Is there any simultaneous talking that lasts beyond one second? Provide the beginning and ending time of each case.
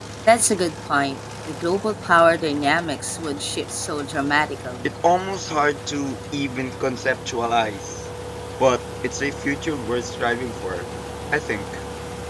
none

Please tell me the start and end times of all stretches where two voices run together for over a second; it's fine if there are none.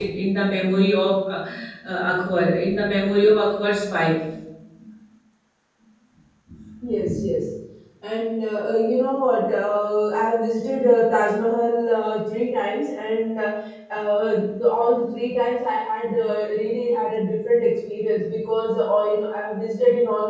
none

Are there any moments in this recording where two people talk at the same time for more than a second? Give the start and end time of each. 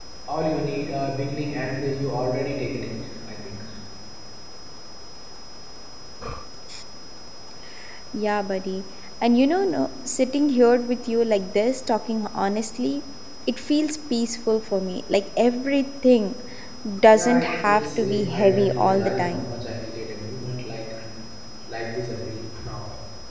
17.1-19.5

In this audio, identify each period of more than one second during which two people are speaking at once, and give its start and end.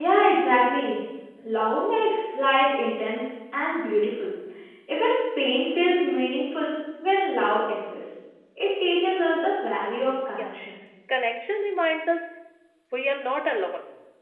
none

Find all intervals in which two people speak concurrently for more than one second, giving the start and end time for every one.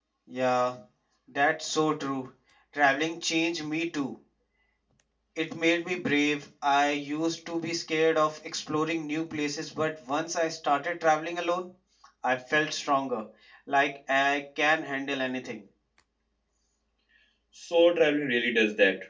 none

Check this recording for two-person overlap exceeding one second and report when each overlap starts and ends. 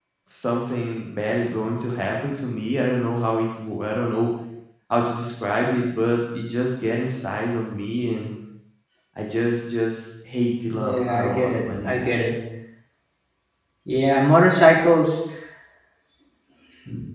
10.7-12.1

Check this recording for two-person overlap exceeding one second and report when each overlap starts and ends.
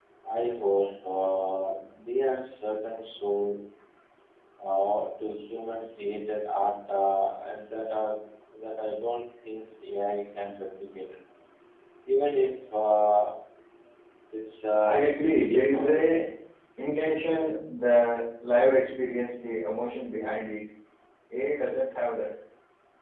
14.8-16.2

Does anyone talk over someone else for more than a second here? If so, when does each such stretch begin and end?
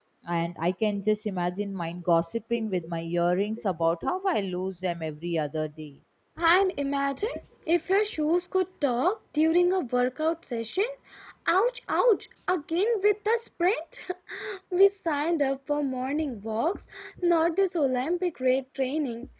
none

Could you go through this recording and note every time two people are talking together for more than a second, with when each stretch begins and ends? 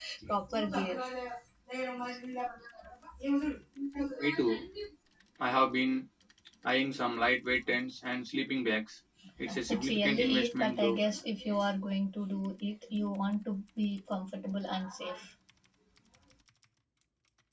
9.7-11.0

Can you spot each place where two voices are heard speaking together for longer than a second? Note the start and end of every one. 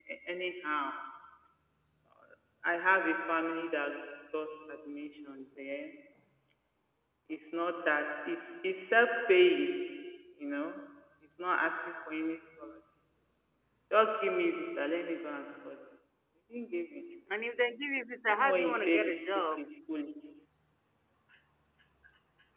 18.3-19.6

